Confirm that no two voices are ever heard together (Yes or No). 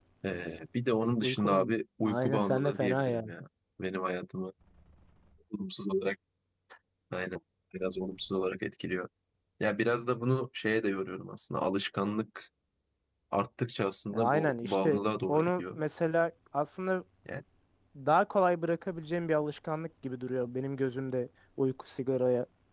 No